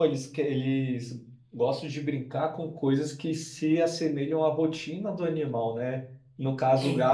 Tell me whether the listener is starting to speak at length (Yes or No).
No